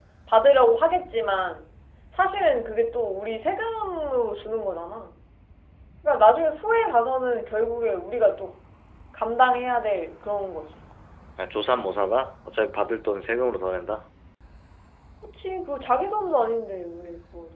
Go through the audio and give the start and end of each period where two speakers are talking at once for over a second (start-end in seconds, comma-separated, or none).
none